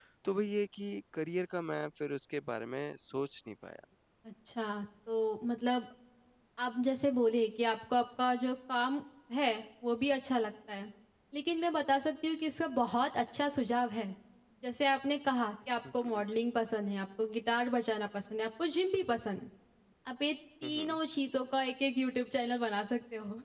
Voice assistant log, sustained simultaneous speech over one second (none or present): none